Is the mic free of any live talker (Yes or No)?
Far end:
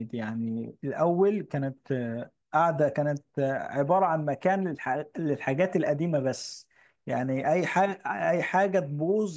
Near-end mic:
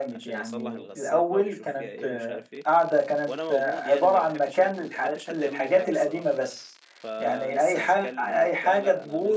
No